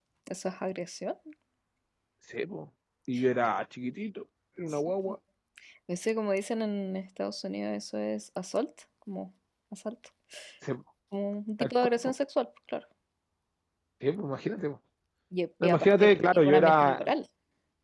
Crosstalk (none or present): present